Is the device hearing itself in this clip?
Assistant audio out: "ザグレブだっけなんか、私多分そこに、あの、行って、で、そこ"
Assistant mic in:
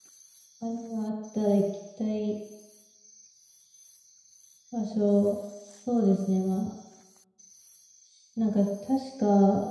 No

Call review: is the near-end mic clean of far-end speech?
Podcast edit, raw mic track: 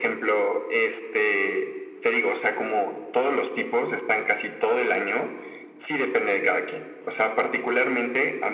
No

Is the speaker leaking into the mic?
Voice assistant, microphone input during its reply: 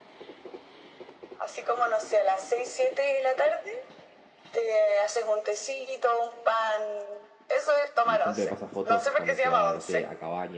Yes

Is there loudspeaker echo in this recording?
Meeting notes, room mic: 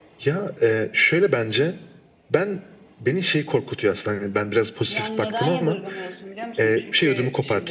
Yes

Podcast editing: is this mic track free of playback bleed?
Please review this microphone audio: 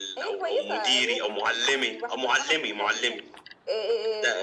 No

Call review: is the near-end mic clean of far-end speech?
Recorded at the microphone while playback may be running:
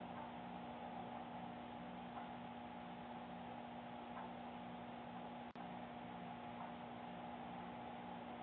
Yes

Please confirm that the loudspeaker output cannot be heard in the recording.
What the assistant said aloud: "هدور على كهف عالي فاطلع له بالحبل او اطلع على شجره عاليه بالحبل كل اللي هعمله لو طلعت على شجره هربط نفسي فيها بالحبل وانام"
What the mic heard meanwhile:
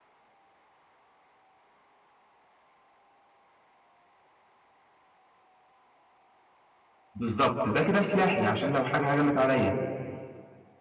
Yes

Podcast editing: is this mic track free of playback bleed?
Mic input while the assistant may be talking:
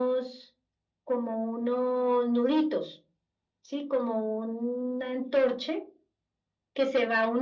No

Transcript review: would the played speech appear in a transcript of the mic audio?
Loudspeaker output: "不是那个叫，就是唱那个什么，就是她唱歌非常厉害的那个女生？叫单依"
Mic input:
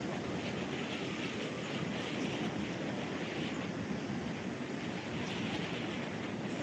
No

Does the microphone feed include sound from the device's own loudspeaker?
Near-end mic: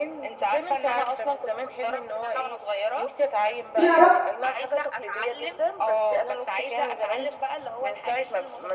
Yes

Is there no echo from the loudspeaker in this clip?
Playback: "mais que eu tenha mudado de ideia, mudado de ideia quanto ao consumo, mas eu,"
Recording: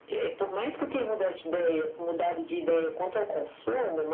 No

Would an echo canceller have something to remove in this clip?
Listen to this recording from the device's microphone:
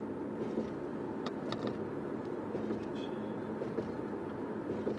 No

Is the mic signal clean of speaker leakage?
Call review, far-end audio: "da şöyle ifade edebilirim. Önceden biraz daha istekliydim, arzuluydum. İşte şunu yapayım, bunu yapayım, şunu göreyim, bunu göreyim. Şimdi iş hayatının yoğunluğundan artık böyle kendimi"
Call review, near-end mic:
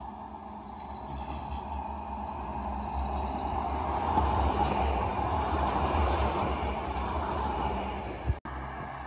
Yes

